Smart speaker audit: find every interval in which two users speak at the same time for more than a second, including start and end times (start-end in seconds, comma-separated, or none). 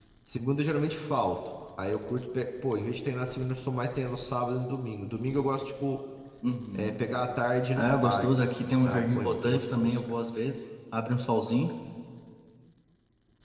7.8-10.0